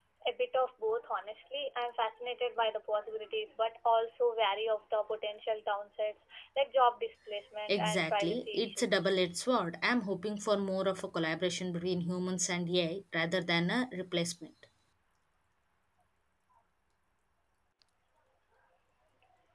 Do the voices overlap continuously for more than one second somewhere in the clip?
Yes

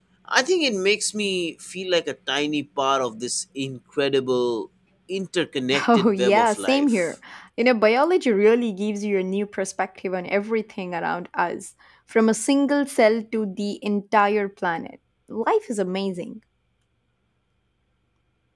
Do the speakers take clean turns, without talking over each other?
No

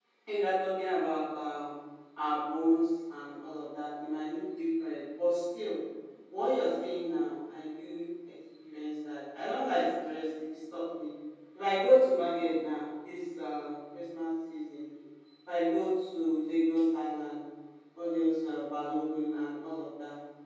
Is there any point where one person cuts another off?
No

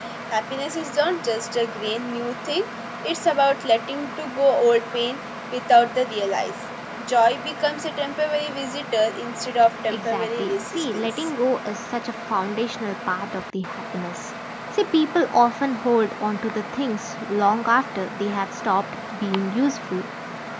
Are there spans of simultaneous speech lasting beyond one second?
Yes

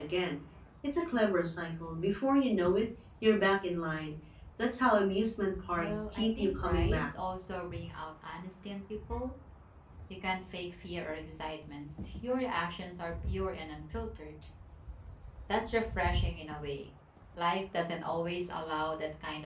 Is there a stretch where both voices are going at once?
Yes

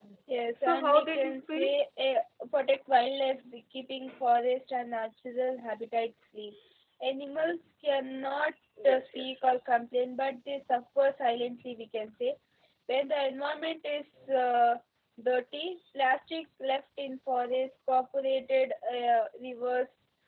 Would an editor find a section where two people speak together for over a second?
Yes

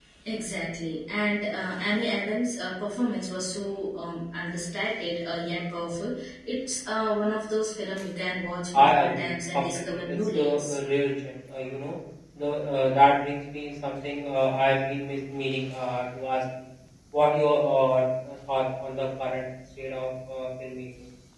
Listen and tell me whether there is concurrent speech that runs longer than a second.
Yes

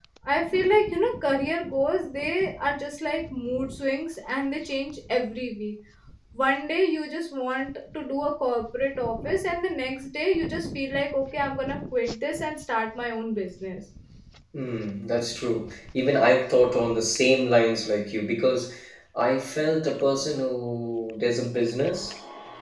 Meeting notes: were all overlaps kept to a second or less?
Yes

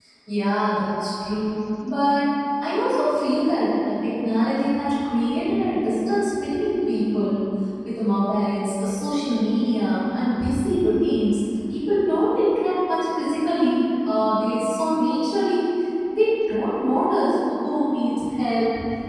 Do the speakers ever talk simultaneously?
No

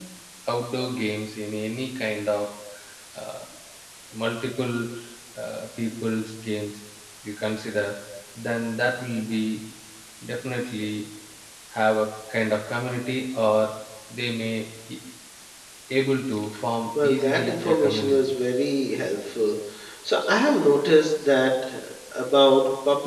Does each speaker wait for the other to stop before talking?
No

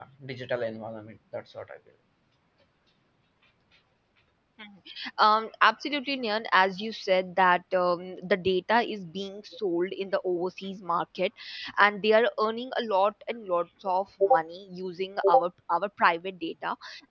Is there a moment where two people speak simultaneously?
No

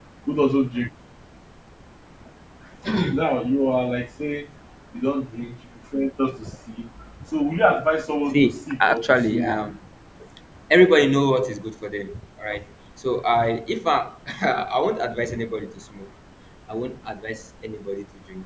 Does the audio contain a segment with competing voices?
Yes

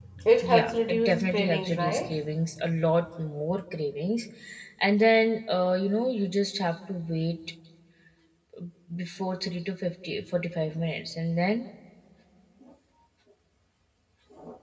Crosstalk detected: Yes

